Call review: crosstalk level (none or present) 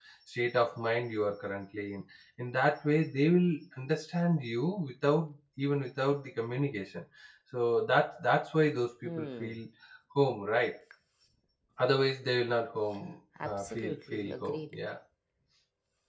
present